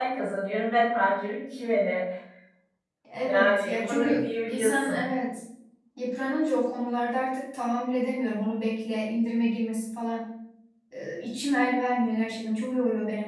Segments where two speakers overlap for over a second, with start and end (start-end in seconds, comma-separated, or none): 3.2-5.0